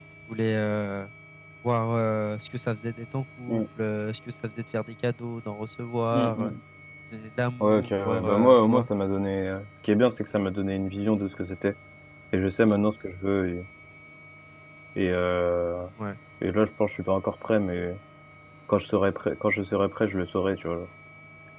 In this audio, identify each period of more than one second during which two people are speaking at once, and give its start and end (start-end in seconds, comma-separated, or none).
7.6-8.9